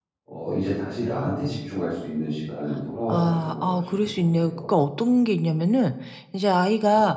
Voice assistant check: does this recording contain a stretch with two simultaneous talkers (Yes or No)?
Yes